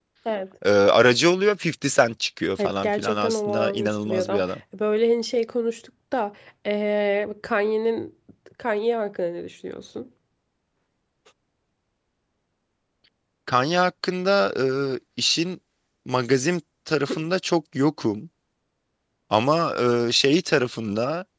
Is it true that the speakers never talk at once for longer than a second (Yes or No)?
No